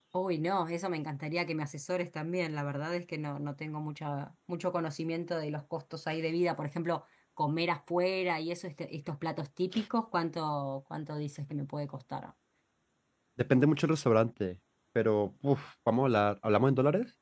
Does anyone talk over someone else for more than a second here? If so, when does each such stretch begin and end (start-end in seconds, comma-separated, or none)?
none